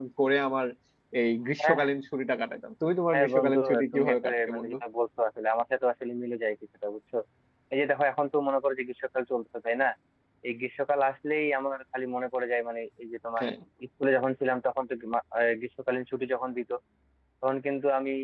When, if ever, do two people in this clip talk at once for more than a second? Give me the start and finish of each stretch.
3.1-4.8

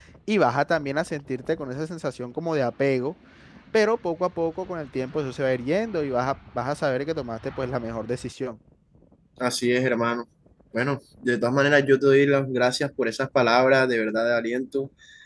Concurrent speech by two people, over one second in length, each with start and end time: none

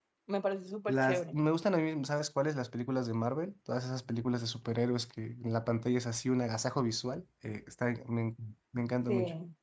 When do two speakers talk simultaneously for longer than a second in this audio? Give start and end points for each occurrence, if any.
none

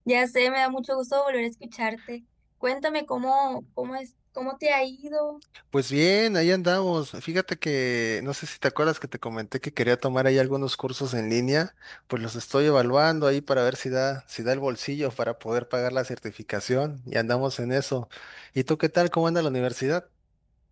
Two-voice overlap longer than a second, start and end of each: none

